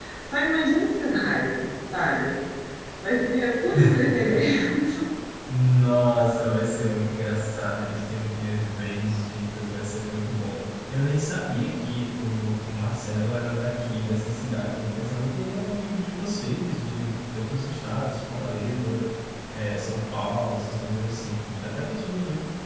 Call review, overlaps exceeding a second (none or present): none